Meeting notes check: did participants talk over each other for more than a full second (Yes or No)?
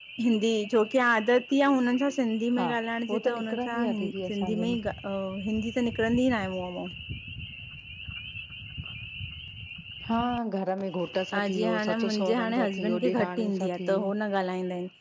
Yes